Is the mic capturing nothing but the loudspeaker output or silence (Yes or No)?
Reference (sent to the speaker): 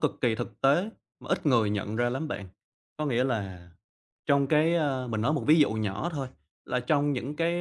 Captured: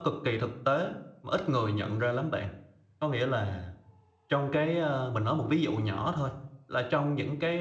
Yes